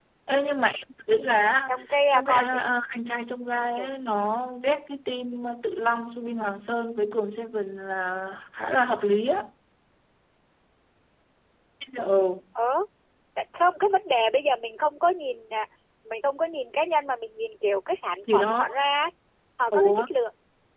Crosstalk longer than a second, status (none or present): none